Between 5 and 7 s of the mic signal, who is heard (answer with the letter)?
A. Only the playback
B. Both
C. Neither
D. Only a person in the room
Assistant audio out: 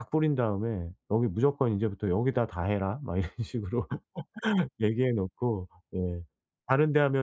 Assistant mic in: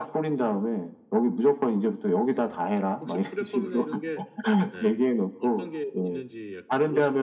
B